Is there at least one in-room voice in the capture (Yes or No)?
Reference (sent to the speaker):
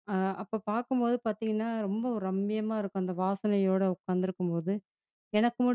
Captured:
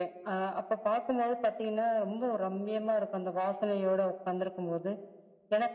No